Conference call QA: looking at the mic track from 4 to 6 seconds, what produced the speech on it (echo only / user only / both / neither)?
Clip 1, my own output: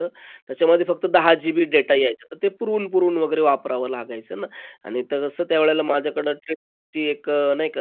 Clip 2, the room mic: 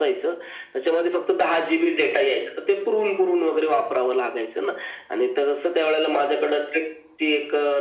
echo only